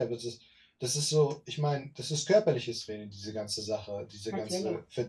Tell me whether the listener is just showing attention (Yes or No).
Yes